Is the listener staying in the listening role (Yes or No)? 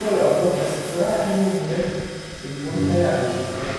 Yes